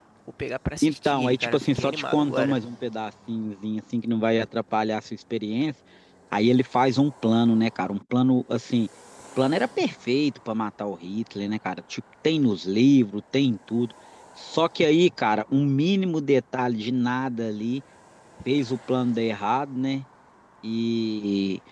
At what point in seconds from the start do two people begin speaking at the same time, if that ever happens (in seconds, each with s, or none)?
0.8 s